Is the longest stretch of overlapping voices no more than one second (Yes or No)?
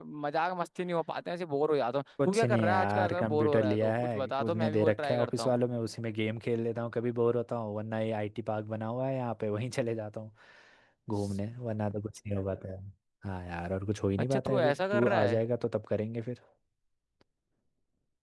No